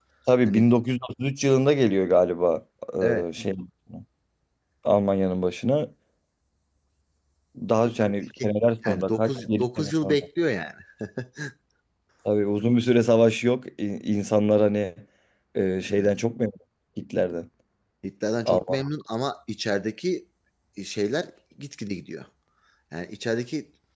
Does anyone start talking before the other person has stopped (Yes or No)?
Yes